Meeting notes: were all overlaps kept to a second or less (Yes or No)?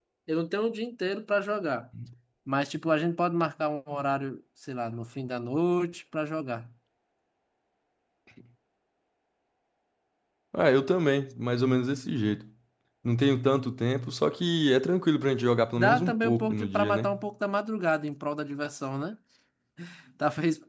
No